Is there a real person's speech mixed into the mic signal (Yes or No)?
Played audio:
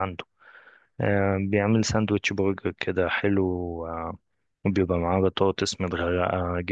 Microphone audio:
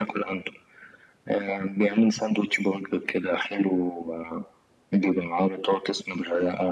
No